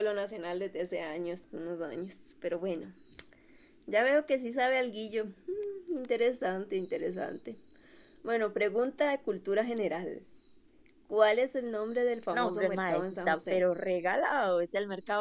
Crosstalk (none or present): present